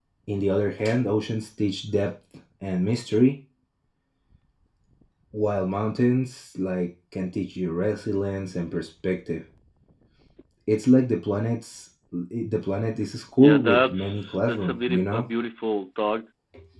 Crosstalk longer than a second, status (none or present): present